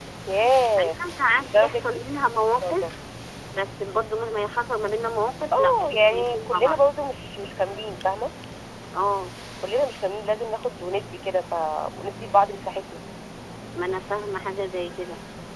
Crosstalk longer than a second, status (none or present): present